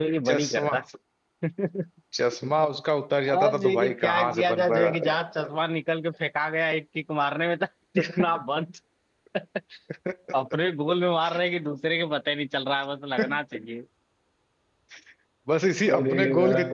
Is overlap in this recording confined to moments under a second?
No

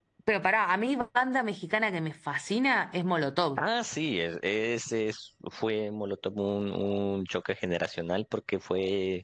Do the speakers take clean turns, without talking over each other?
Yes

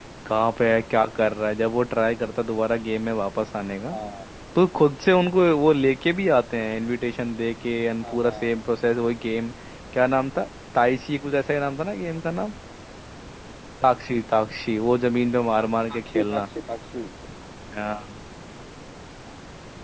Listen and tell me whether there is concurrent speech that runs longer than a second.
No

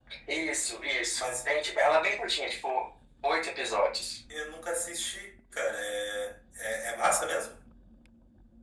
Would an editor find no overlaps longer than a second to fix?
Yes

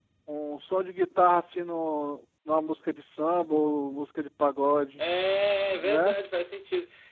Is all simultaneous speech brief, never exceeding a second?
Yes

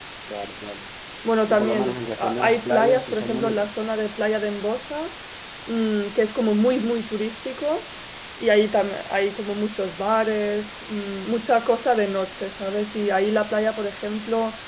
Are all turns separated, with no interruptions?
No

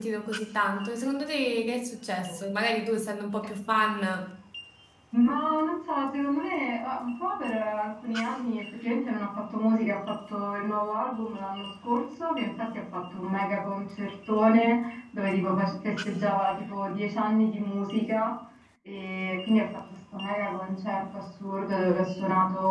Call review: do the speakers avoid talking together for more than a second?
Yes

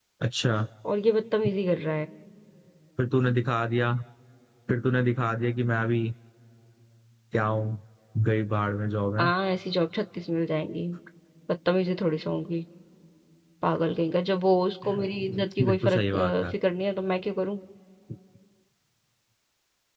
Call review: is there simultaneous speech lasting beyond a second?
Yes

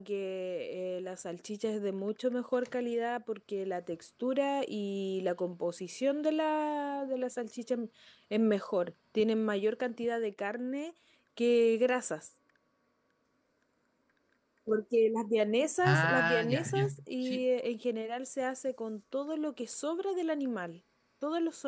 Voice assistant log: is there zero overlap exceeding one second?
No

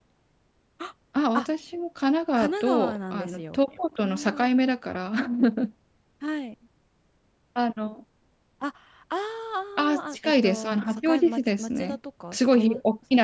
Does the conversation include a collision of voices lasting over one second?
Yes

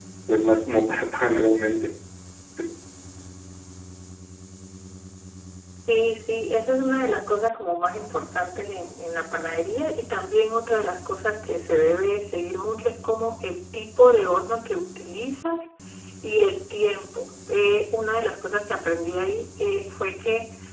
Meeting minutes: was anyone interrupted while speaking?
No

